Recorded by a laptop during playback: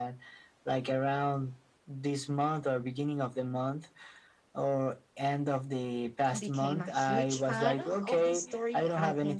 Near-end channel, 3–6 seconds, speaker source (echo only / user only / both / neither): echo only